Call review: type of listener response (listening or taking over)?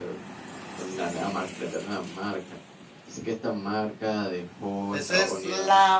taking over